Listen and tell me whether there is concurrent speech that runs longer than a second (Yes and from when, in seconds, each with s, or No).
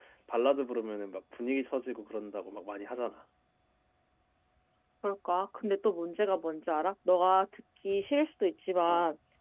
No